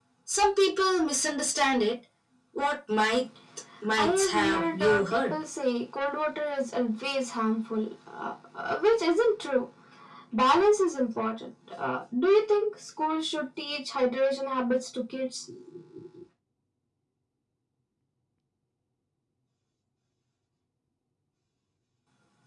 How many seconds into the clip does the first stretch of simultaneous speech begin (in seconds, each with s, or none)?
4.0 s